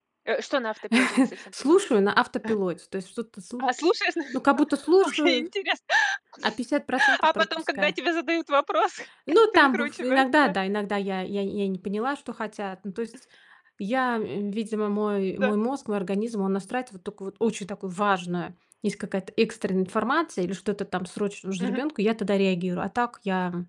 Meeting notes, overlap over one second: present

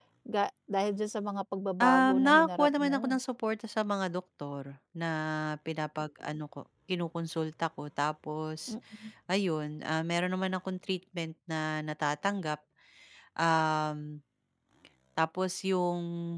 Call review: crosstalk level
present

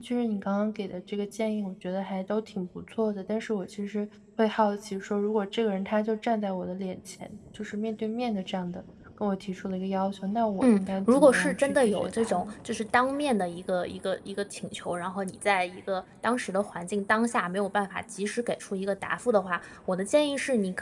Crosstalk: present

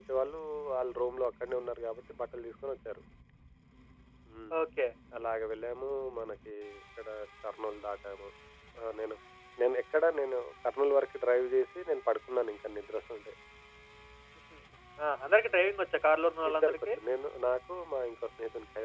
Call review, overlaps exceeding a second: none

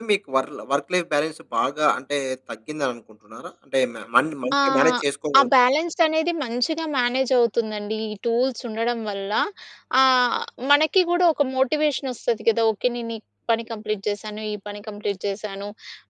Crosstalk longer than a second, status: none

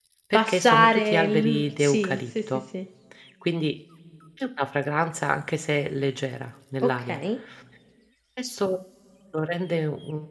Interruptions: present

